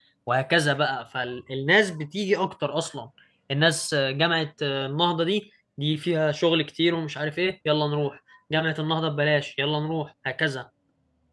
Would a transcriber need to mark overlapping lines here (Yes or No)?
No